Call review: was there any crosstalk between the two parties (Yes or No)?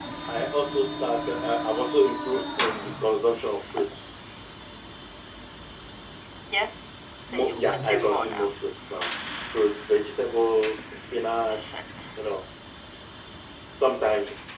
Yes